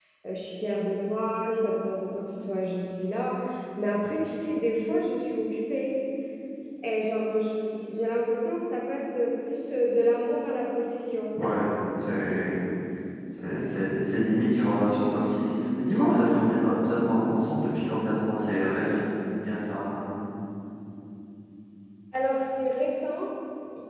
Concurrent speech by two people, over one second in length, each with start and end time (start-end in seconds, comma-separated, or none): none